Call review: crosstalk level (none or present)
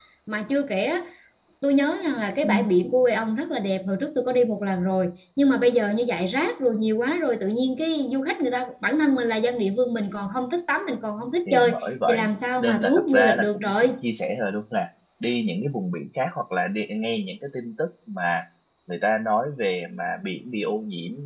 present